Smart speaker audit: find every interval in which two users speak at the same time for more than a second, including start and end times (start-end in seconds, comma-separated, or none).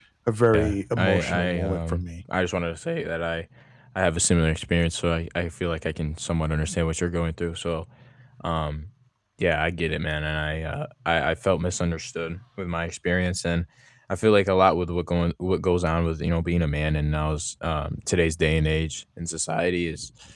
0.5-2.0